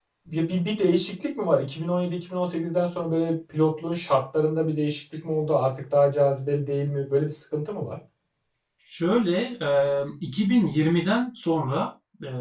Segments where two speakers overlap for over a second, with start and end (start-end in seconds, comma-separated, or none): none